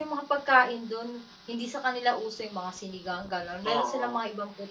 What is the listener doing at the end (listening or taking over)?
taking over